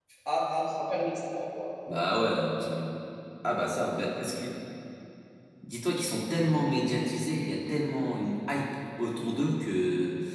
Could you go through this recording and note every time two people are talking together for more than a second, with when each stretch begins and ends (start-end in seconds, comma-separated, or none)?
none